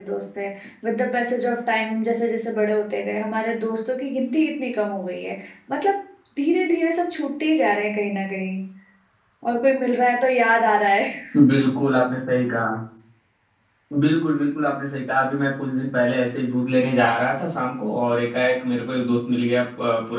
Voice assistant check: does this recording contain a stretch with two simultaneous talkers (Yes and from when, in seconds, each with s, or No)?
No